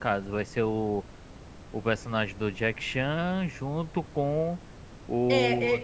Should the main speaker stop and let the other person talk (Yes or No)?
Yes